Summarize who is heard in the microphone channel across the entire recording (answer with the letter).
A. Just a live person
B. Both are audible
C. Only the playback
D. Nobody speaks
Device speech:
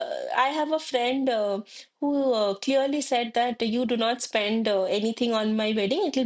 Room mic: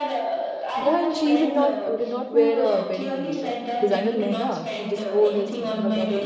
B